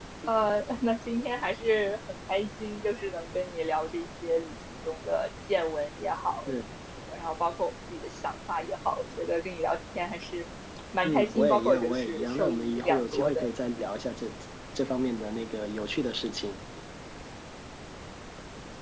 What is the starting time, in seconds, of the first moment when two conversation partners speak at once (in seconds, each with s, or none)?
11.0 s